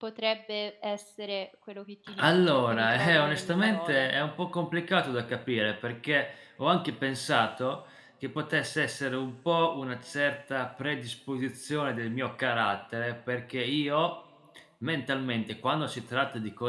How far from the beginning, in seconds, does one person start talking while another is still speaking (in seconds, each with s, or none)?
2.1 s